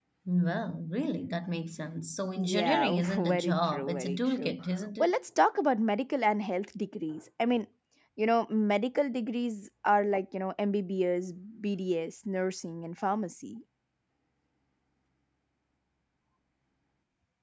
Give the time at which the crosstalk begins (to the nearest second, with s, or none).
2 s